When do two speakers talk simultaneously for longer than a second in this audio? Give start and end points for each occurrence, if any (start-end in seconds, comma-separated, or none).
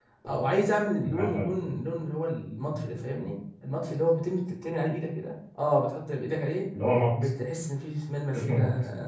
none